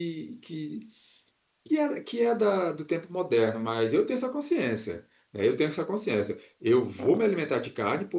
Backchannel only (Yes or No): Yes